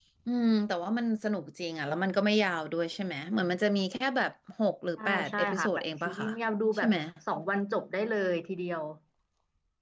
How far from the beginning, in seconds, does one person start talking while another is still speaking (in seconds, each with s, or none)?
5.0 s